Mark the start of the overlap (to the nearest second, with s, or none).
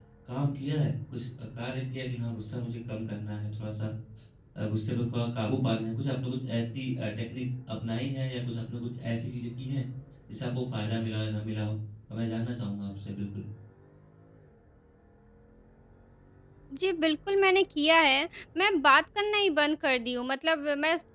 none